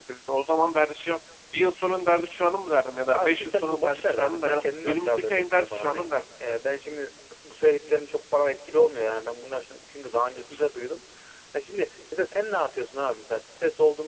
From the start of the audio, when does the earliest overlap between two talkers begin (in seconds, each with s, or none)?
3.1 s